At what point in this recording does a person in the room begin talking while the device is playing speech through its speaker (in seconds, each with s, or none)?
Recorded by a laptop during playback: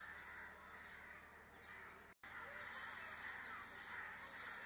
none